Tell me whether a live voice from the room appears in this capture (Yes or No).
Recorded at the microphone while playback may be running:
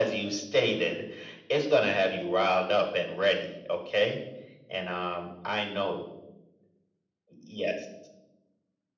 No